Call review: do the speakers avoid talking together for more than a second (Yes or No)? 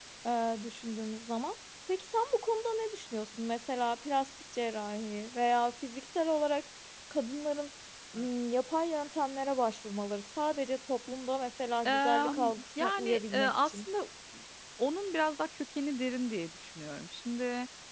No